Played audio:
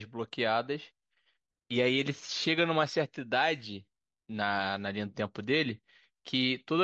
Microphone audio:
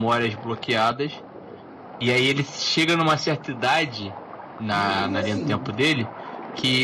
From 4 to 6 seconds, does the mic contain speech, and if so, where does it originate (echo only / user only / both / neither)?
both